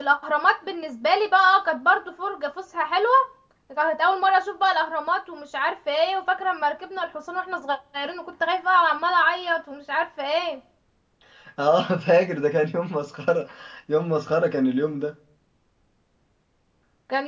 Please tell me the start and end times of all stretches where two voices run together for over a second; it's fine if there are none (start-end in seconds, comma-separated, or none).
none